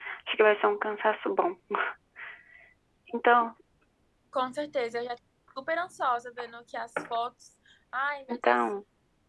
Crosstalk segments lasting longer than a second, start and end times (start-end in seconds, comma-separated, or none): none